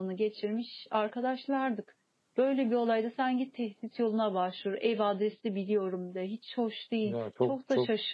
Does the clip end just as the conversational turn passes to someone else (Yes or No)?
Yes